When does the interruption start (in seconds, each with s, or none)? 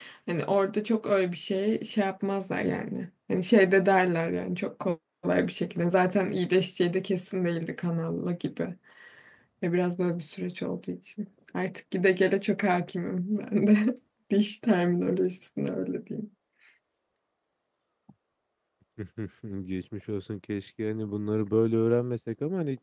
none